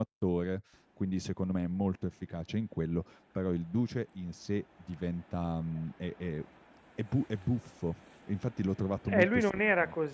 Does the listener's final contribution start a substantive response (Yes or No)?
Yes